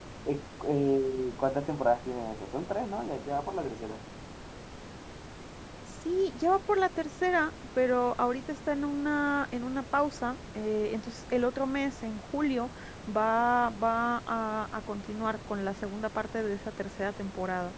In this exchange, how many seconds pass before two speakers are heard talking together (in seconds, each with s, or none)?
none